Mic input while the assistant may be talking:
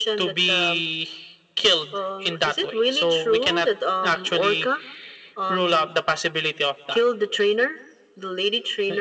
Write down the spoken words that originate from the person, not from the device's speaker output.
none

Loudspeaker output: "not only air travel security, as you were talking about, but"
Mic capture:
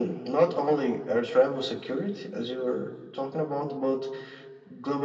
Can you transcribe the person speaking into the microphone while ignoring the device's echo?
none

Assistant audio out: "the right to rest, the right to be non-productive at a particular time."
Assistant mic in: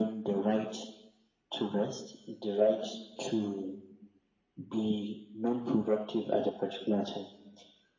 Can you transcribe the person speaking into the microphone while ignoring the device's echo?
none

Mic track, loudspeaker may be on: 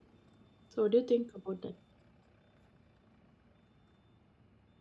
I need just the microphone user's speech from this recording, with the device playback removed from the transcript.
so what do you think about that

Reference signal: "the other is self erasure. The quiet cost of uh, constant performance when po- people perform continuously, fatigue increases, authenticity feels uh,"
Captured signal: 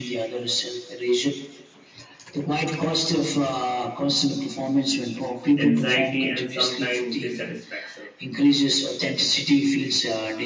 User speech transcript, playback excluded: anxiety, and sometimes dissatisfaction.

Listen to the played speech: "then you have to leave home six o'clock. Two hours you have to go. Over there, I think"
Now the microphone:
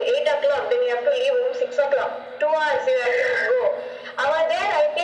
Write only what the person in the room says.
none

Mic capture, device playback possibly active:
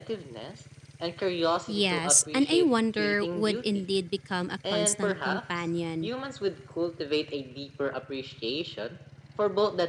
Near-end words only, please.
Yes, and I wonder would indeed become a constant companion.

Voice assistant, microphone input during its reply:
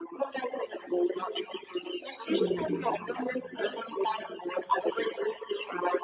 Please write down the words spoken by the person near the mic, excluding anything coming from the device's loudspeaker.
mm,

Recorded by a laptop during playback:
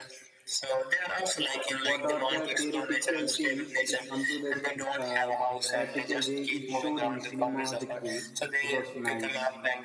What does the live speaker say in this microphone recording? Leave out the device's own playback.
what are the theoretical things is come to this uh, practical way. It showed in cinematic way. It was nice

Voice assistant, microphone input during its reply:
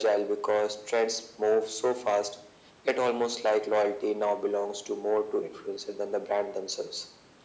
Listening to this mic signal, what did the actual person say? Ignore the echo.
none

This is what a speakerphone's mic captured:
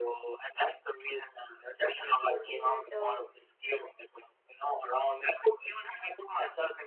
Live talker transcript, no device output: would be that um,

